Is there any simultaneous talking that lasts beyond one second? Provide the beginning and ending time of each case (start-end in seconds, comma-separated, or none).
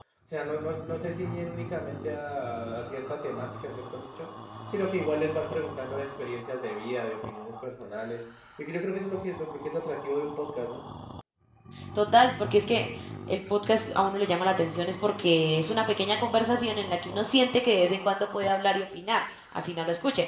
none